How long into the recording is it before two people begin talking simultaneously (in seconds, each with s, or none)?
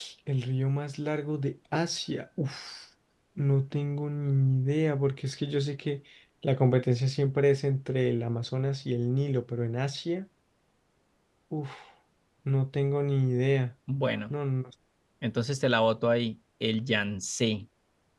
none